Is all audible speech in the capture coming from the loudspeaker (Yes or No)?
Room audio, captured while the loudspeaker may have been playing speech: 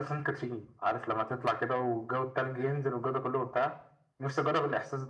Yes